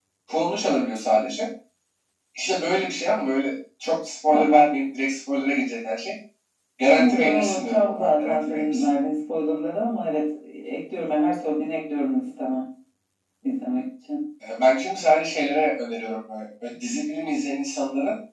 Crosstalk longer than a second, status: present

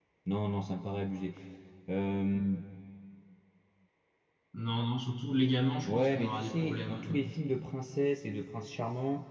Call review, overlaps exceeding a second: present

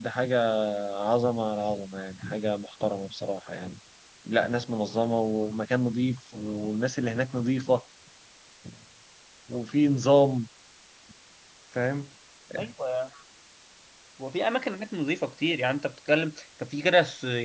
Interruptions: none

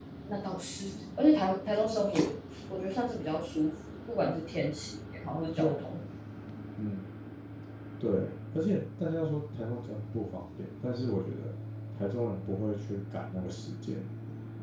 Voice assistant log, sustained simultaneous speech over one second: none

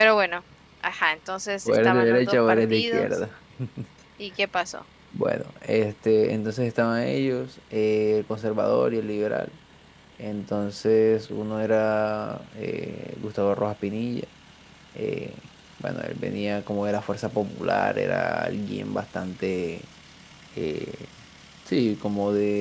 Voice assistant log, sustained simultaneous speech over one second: present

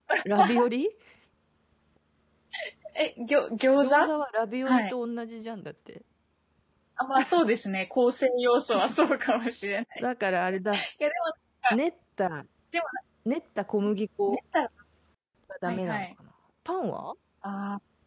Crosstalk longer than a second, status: none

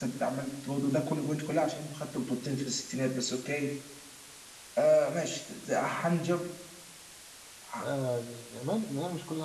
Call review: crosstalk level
none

